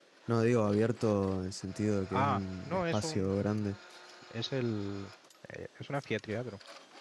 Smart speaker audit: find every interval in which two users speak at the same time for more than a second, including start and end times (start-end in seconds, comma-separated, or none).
2.1-3.5